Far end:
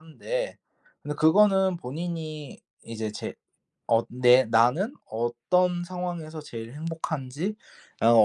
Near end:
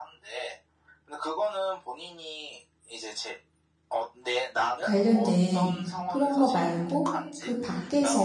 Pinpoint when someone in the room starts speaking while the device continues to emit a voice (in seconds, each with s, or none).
4.8 s